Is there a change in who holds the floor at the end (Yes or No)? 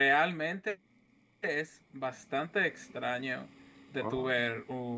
No